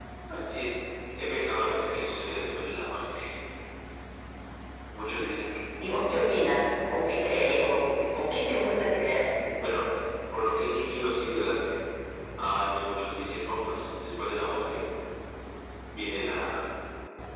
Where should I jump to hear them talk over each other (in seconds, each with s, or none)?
none